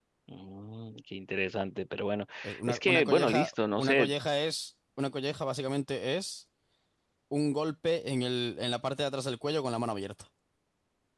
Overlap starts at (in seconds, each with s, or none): 2.7 s